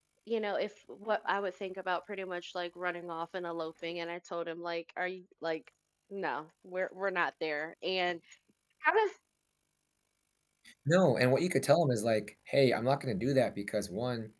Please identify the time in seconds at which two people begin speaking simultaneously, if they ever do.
none

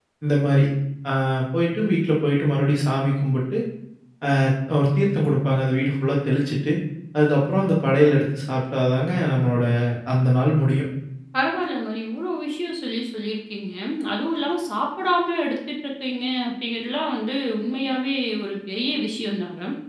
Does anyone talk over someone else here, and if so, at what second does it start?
none

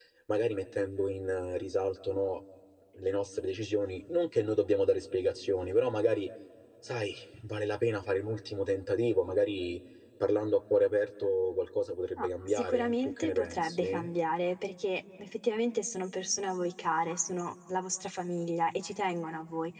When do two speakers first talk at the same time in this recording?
12.2 s

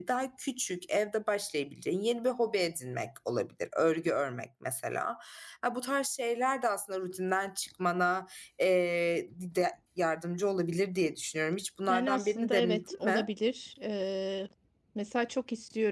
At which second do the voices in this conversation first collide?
11.9 s

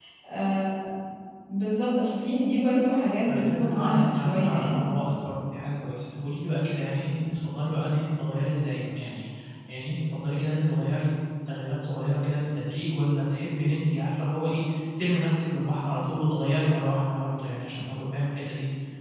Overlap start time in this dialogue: 3.3 s

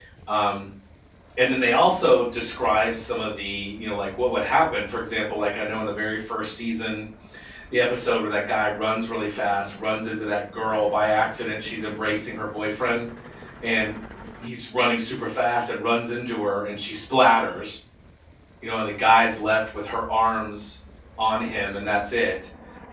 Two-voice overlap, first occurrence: none

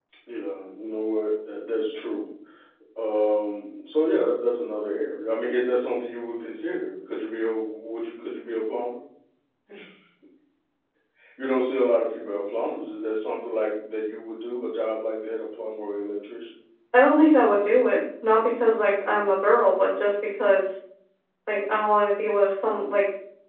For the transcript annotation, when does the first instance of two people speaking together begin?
none

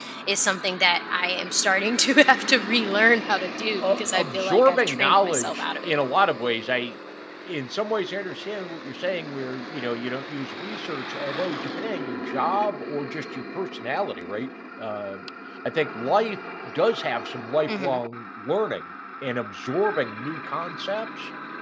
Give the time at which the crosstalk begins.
3.9 s

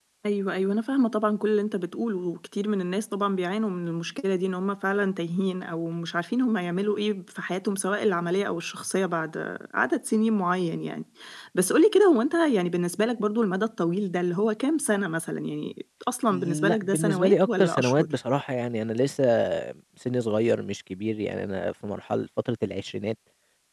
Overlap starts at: 16.3 s

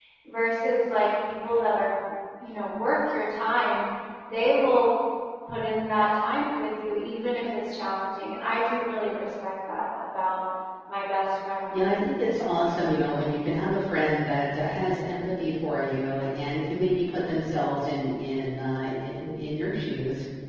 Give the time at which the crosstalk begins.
none

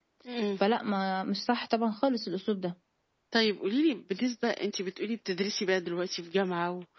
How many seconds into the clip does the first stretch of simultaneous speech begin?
none

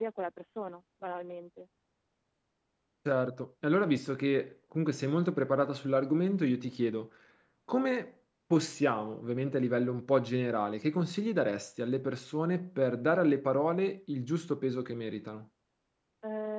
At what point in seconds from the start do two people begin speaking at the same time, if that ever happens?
none

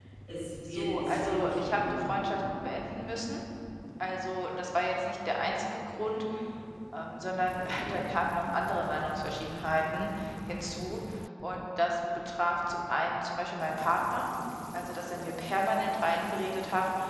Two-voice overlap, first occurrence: 0.7 s

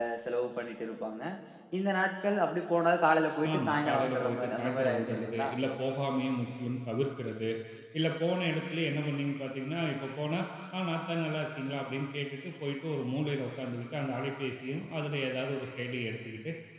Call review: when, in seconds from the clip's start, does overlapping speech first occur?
3.4 s

